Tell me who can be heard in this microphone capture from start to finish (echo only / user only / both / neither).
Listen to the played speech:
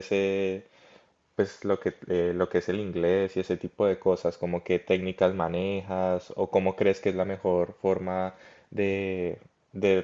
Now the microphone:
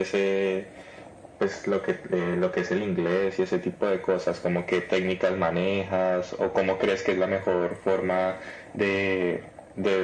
echo only